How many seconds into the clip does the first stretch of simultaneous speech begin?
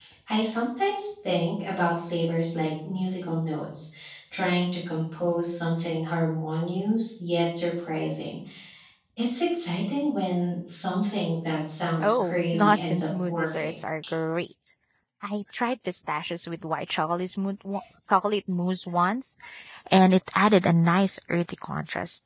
12.0 s

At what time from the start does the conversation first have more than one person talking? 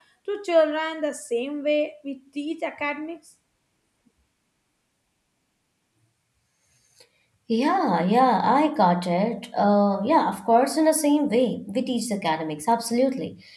none

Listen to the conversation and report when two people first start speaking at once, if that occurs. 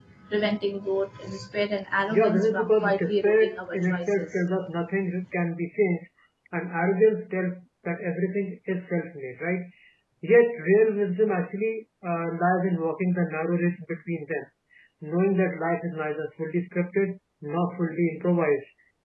2.1 s

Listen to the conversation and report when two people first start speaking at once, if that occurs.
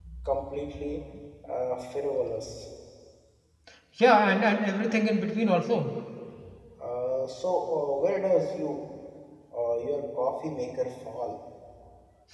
none

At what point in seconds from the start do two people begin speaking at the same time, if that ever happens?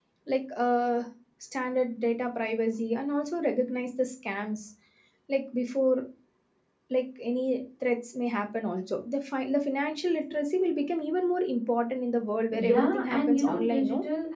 12.5 s

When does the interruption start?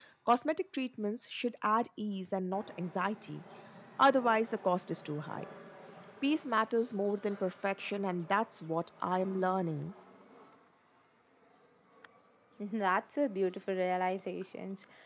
none

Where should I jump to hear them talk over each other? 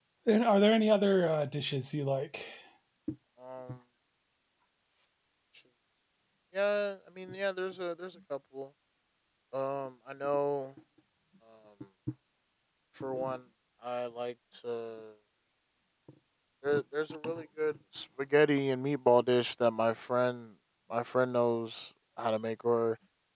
none

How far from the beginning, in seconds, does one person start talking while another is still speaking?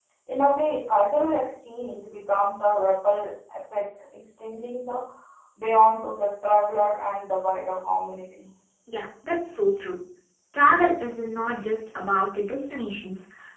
none

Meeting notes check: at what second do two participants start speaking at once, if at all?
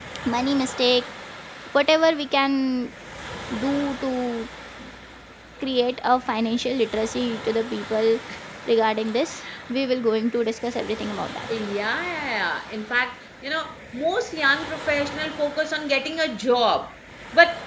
none

